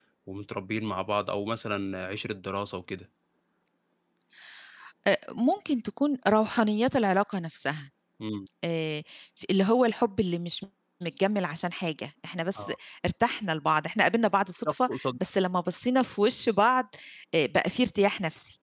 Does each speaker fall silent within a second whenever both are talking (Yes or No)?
Yes